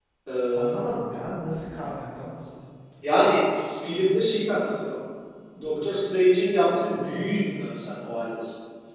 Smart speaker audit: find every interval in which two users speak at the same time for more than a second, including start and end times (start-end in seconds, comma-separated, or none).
none